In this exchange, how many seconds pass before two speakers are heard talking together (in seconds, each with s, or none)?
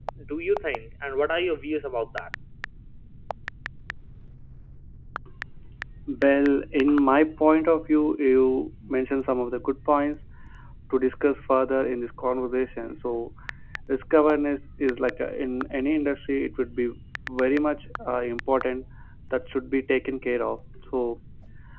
none